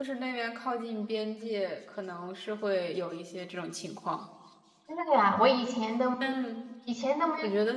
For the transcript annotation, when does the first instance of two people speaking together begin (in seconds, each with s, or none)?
none